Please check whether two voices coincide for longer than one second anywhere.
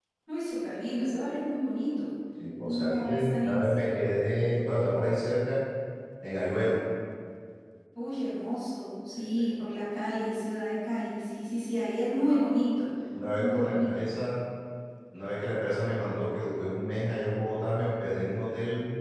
Yes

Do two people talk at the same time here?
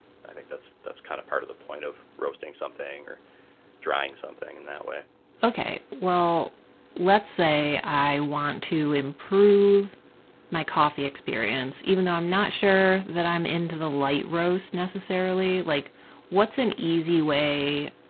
No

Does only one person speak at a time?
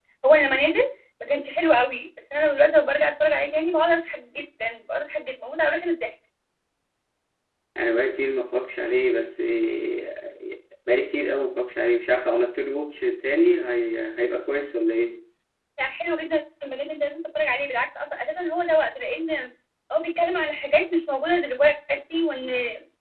Yes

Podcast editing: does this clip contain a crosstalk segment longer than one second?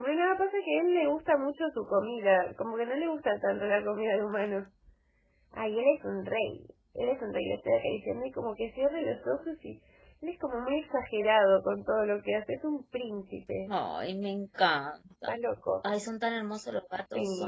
No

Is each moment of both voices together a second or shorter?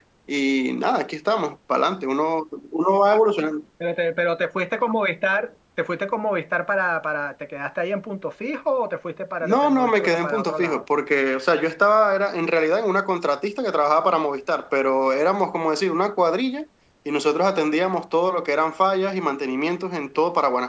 No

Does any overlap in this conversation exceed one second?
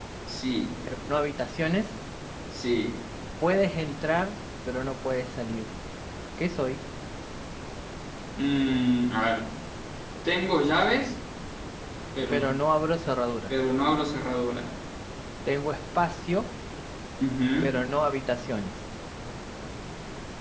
No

